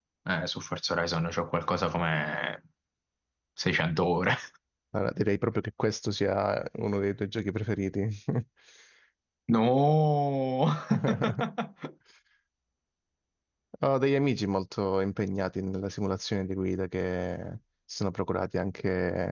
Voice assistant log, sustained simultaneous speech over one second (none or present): none